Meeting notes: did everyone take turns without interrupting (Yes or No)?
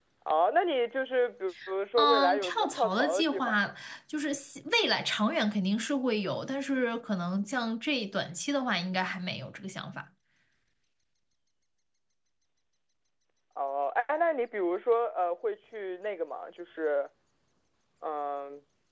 No